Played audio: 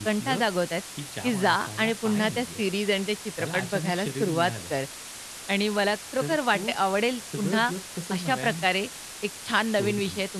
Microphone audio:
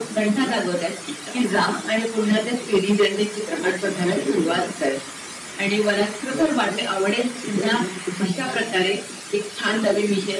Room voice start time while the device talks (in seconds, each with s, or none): none